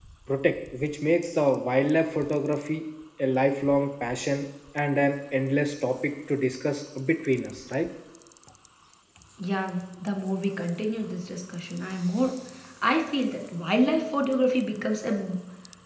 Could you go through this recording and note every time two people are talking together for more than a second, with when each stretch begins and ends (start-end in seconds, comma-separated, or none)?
none